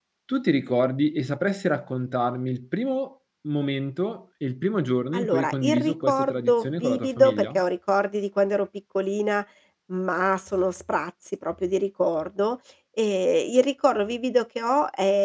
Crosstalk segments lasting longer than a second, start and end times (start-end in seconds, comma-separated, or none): 5.1-7.6